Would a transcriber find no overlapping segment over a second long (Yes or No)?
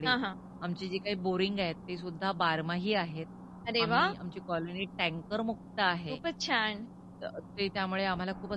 Yes